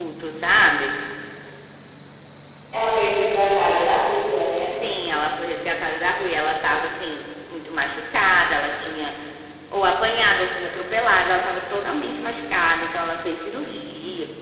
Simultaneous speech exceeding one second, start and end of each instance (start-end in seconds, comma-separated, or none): none